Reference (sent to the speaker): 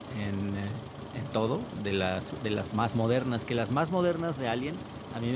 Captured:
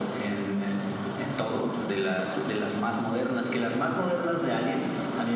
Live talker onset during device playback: none

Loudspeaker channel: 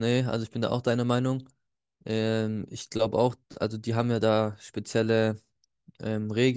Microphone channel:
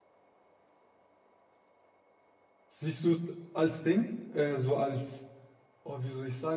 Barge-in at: 2.7 s

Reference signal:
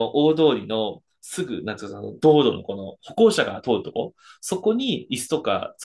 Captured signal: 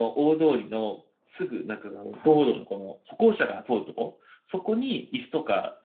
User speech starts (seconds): 2.1 s

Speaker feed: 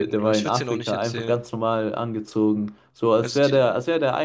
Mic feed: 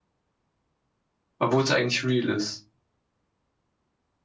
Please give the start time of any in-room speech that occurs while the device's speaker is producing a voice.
1.4 s

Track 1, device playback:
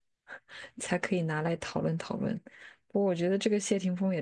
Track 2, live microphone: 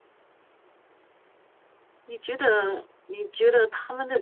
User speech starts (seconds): 2.0 s

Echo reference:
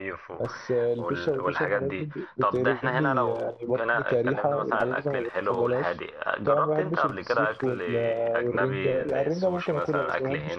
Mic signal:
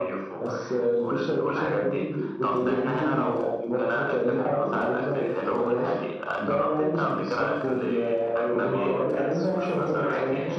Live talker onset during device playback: 8.3 s

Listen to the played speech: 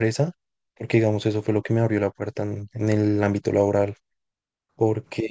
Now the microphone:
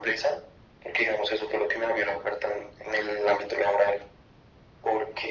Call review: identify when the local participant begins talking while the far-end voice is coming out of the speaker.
none

